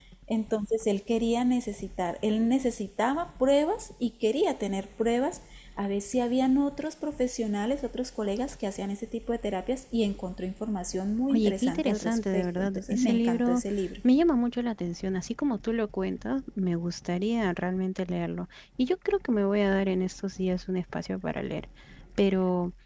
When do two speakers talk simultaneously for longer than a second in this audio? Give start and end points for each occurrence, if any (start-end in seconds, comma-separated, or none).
11.3-13.6